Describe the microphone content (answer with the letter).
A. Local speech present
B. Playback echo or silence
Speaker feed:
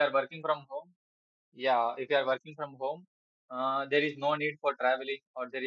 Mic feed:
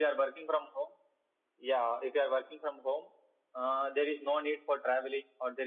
B